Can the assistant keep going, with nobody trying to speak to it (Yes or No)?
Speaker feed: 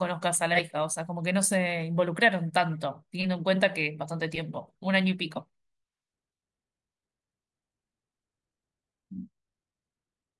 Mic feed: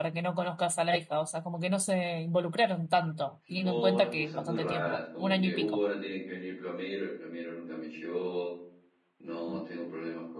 No